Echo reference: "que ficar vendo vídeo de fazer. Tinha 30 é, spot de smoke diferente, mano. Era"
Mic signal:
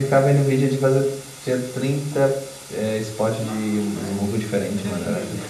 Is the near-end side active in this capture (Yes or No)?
Yes